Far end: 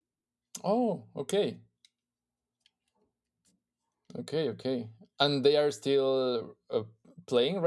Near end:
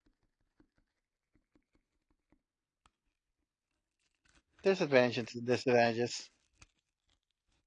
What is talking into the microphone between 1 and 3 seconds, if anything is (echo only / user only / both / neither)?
neither